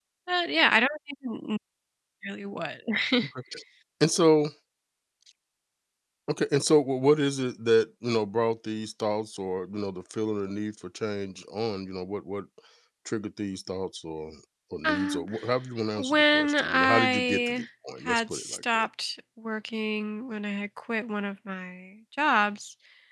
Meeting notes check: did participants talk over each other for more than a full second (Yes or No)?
Yes